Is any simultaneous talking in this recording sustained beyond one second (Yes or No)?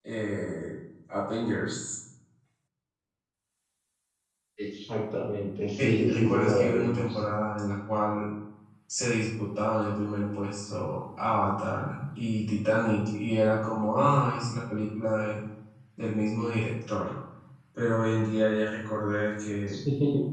Yes